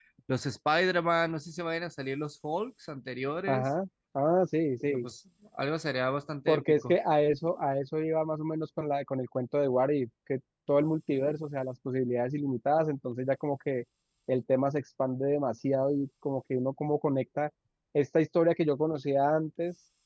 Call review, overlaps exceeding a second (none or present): none